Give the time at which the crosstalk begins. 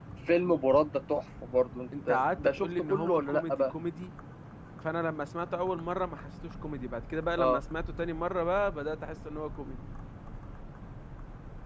2 s

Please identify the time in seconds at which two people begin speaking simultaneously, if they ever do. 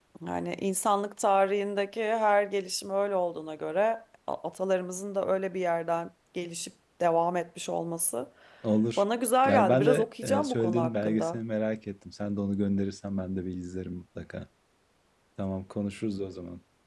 9 s

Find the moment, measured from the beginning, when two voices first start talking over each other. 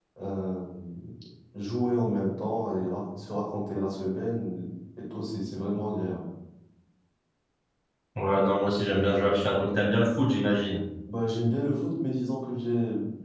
none

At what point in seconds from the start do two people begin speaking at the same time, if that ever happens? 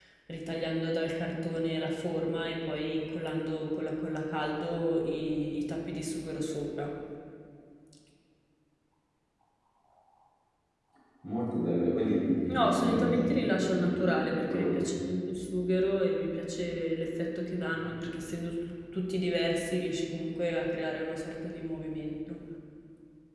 13 s

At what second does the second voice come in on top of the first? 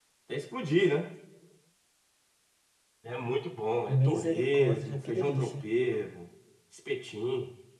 4 s

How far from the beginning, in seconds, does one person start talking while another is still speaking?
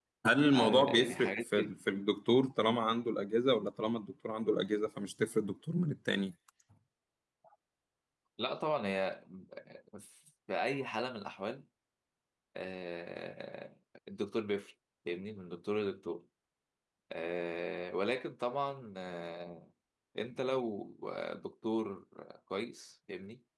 1 s

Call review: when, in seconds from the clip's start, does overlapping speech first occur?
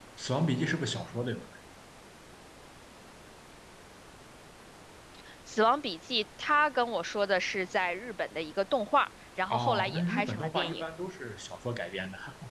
10 s

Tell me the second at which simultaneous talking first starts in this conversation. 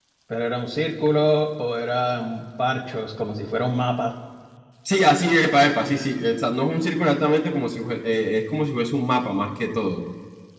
none

